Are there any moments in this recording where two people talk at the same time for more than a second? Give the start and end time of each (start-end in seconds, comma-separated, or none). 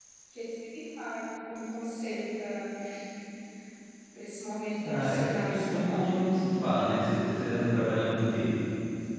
4.8-6.2